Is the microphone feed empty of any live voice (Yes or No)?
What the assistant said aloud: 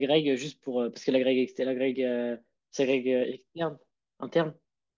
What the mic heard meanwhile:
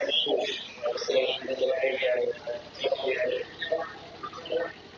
Yes